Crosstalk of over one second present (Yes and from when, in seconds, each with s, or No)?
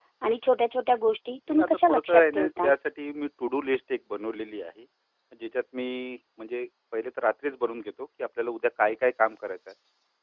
Yes, from 1.5 s